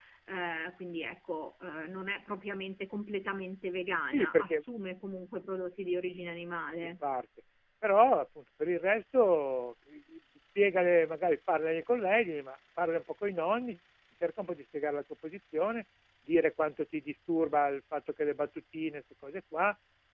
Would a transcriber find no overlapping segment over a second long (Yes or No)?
Yes